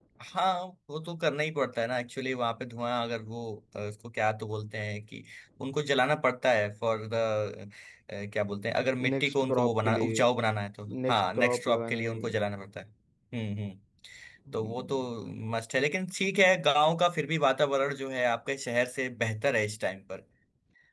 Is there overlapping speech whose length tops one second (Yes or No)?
Yes